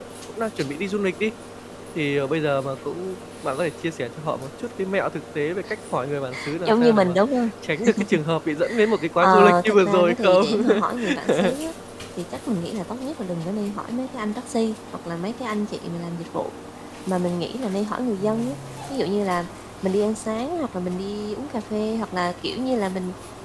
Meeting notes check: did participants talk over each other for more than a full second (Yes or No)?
Yes